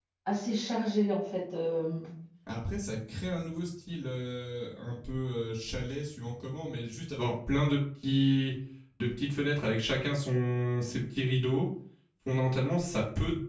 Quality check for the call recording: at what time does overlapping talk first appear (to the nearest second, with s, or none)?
none